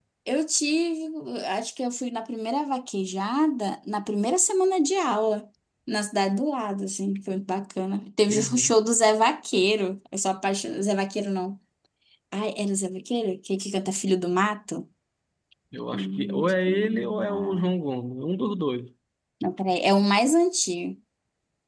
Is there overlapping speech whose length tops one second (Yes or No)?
Yes